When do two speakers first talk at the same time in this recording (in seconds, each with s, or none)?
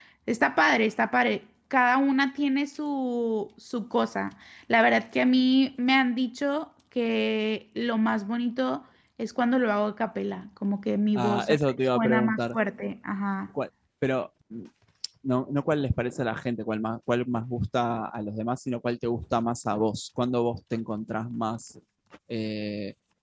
11.2 s